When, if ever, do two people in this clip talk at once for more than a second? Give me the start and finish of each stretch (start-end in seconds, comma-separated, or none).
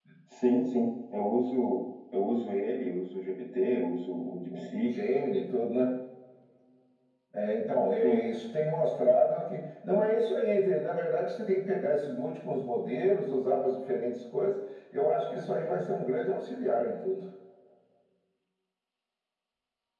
none